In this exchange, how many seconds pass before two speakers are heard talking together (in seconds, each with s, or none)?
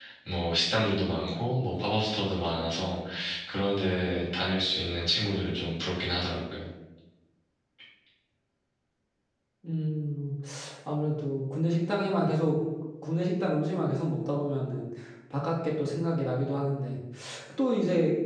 none